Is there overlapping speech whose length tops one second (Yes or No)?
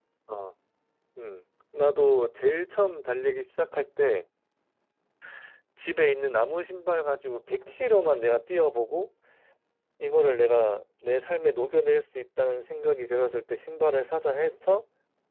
No